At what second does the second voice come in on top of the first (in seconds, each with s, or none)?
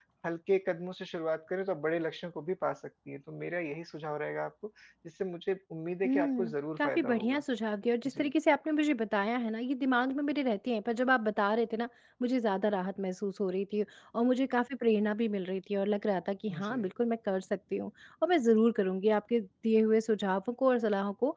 6.0 s